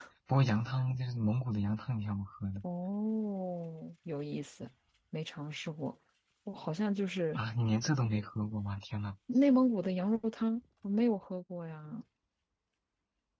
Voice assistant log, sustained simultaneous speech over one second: none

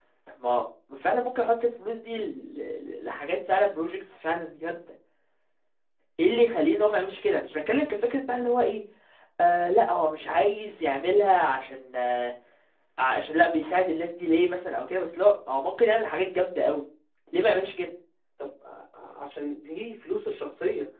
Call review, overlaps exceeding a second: none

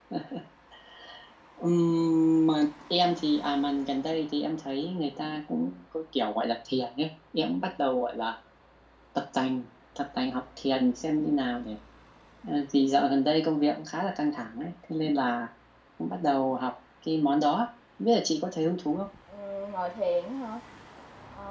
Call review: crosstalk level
none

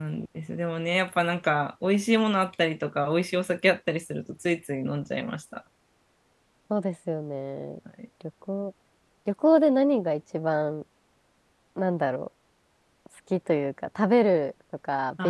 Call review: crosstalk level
none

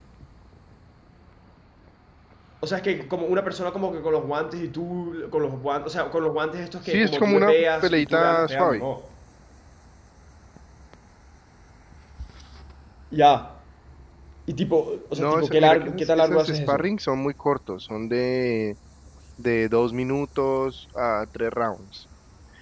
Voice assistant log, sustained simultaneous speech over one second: present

